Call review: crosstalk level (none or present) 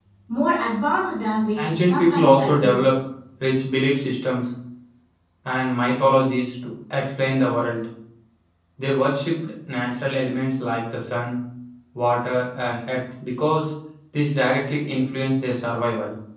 present